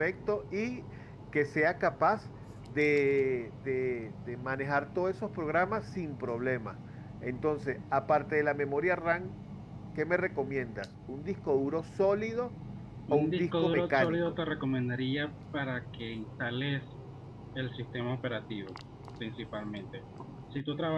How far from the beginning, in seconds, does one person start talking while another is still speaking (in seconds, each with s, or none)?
13.1 s